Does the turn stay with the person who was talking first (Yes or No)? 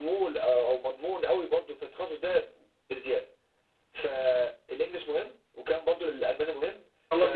No